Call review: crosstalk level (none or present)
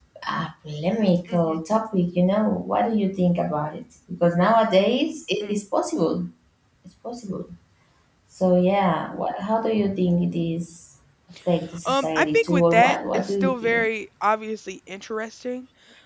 present